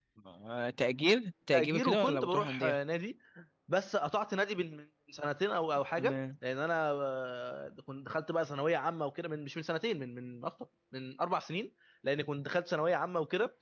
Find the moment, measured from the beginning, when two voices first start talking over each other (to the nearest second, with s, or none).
2 s